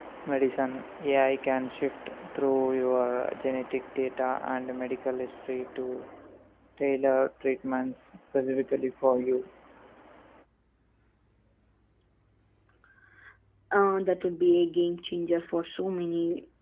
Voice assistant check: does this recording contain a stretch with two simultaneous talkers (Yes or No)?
No